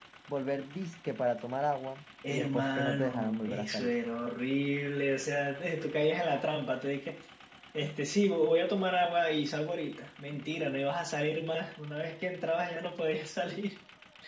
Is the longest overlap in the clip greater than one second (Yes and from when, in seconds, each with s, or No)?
Yes, from 2.2 s